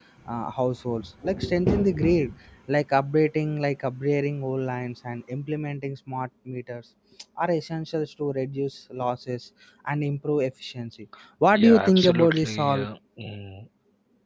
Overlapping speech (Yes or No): Yes